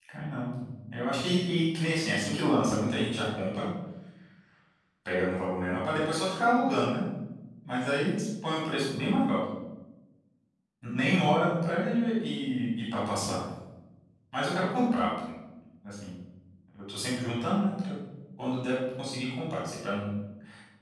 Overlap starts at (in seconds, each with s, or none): none